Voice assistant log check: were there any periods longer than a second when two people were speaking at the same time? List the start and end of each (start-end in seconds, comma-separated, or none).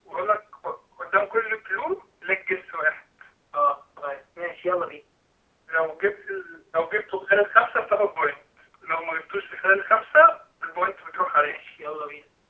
none